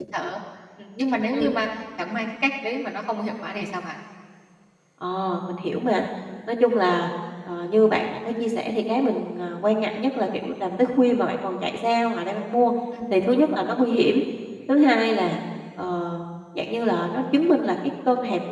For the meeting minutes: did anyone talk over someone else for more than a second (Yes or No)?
No